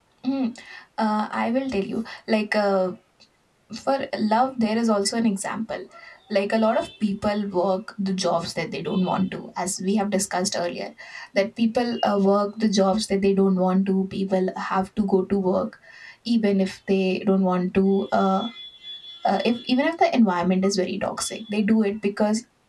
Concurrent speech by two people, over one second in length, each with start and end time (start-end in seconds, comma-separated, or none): none